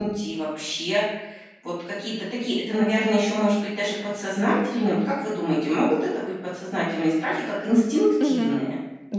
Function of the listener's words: taking over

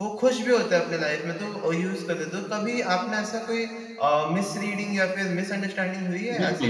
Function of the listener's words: taking over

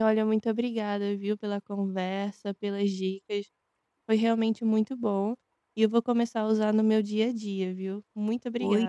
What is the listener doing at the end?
taking over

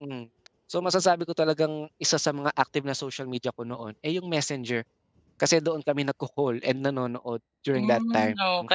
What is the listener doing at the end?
taking over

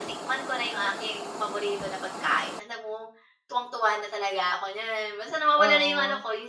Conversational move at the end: listening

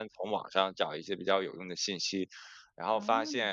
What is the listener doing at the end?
listening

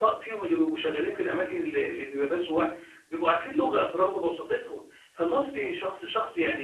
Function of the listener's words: listening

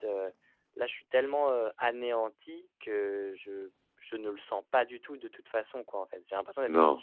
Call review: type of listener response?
listening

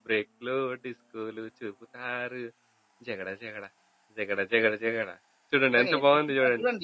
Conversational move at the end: taking over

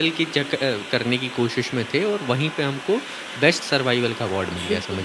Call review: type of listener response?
taking over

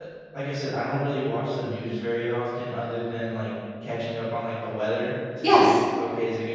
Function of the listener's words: listening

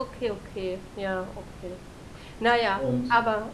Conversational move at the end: listening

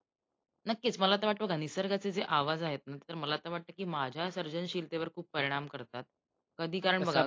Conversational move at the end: listening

